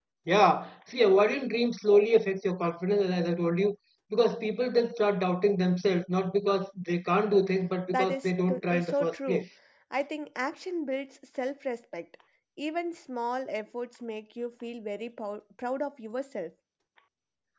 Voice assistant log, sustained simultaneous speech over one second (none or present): present